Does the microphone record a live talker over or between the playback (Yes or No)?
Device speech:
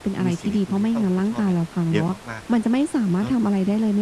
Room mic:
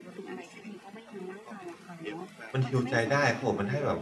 Yes